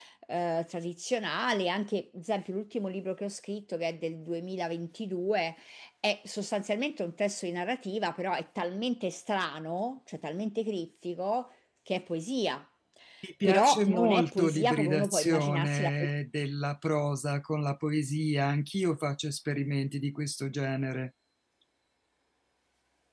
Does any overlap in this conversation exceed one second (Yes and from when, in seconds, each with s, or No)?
Yes, from 13.4 s